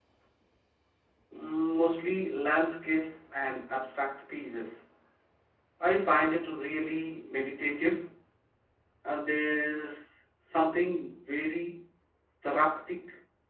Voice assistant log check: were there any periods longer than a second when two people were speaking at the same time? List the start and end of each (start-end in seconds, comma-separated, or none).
none